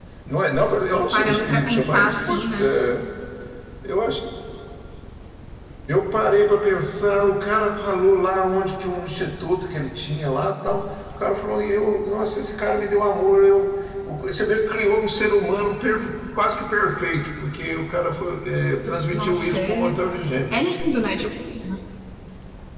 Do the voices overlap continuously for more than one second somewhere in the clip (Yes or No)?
Yes